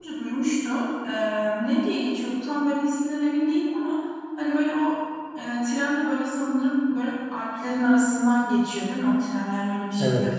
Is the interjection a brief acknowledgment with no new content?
No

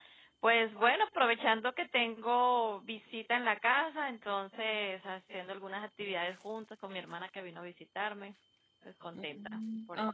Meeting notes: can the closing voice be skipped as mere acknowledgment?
No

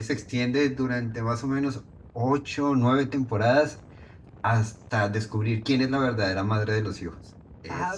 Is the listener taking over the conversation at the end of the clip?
Yes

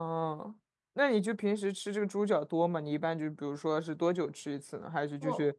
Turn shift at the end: No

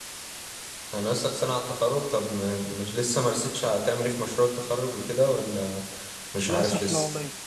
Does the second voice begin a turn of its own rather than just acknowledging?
Yes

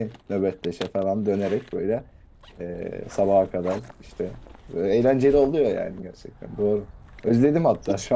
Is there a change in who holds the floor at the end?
No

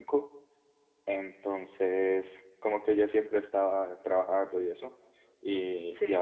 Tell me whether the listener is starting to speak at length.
No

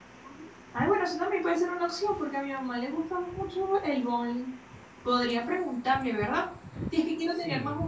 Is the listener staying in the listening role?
Yes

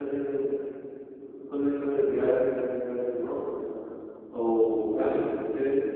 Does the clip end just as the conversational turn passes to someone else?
Yes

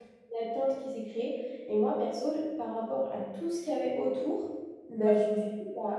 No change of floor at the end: Yes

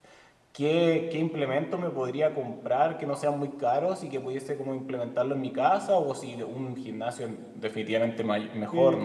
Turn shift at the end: Yes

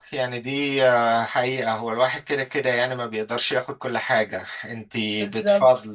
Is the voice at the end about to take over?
No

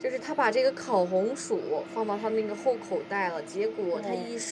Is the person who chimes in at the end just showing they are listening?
Yes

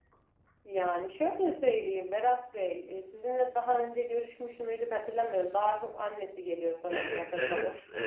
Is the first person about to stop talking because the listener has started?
Yes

